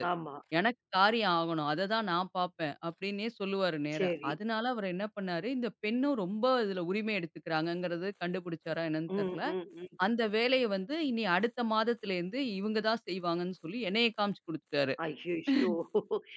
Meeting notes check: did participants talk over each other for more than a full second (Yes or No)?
No